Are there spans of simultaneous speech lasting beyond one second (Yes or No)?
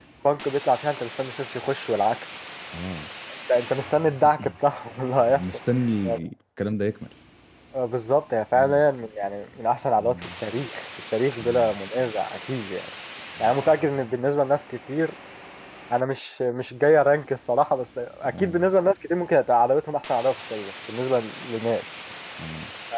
No